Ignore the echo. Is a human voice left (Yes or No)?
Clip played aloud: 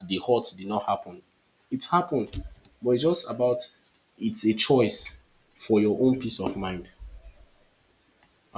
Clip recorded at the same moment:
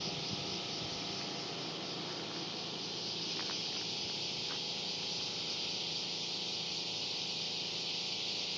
No